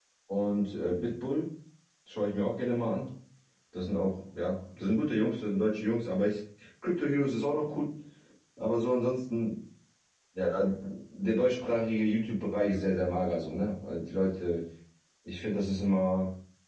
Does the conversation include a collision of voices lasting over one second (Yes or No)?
No